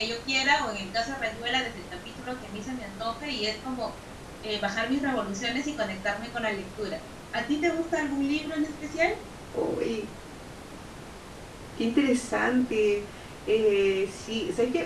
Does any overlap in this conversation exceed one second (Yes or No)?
No